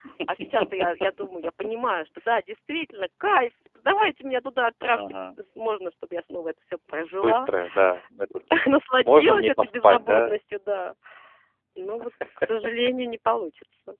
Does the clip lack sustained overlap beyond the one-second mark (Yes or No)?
No